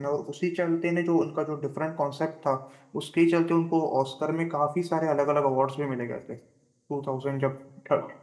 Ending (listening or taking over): listening